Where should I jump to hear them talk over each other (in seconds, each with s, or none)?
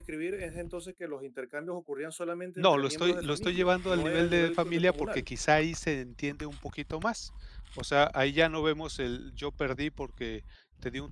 2.6 s